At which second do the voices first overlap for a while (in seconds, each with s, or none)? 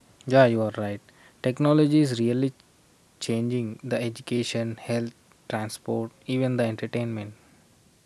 none